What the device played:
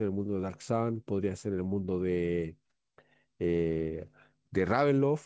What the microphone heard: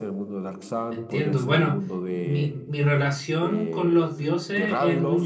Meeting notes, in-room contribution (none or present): present